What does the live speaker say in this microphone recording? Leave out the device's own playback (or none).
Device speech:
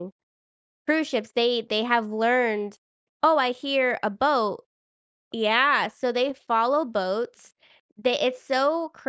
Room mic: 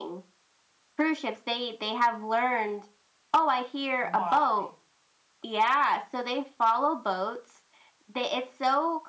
Why?